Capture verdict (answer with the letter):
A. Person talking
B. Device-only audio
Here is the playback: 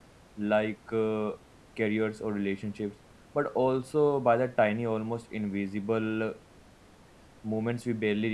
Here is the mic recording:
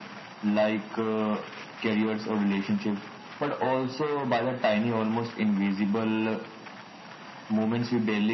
B